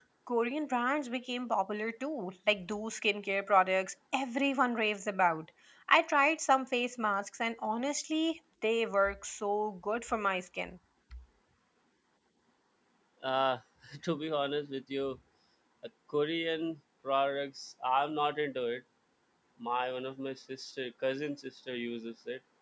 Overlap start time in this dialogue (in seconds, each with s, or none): none